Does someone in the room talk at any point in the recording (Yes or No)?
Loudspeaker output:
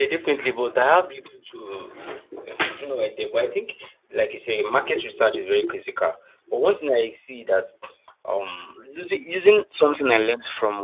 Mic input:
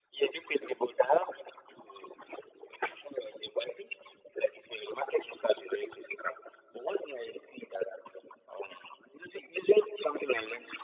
No